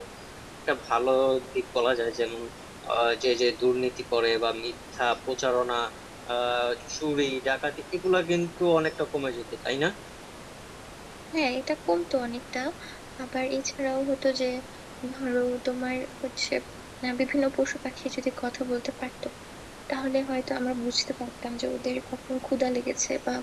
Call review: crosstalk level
none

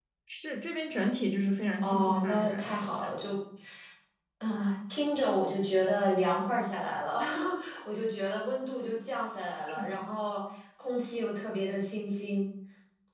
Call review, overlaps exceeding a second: present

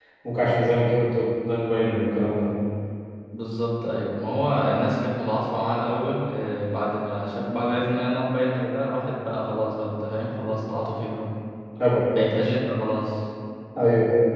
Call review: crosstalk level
none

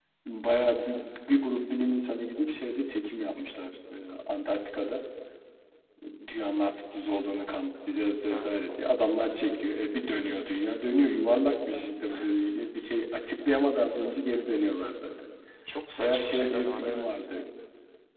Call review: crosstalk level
present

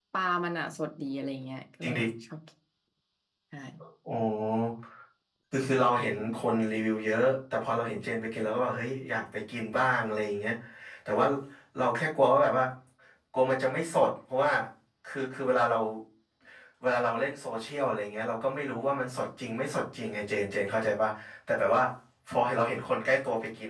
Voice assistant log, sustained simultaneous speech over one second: none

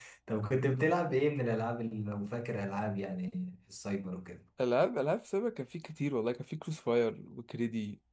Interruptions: none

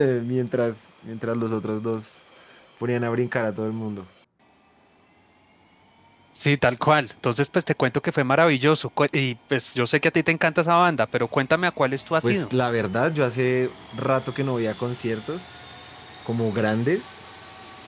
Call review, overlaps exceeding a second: none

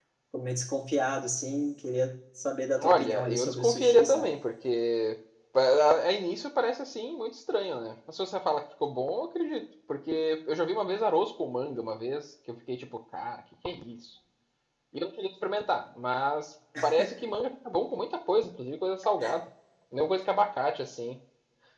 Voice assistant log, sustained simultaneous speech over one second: present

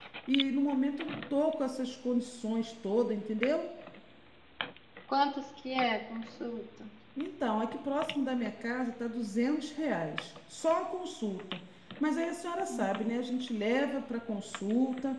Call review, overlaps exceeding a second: none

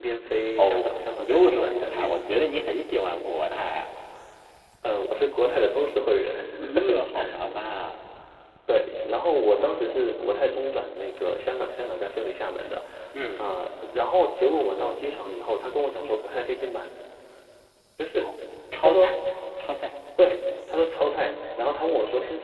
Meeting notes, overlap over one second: present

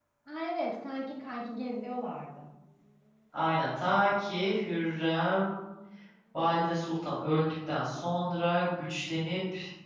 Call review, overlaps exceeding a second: none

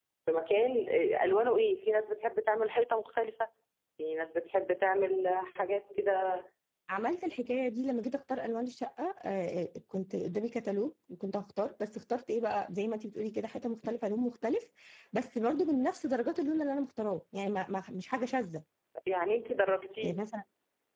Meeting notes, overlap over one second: none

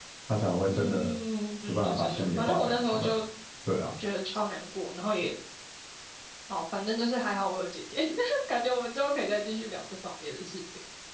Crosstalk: present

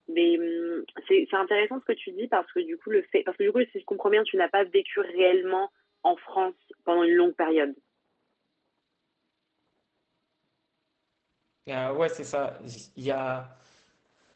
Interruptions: none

